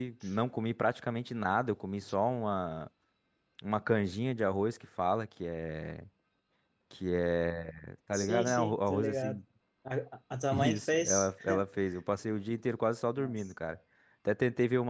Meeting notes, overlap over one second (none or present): present